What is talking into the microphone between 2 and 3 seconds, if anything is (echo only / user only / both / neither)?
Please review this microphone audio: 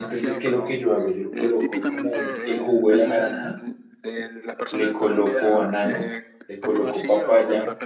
both